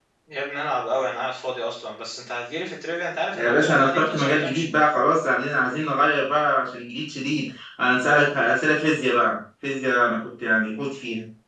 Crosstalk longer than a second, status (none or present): present